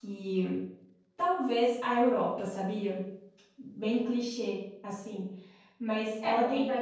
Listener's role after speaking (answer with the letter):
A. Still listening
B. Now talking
B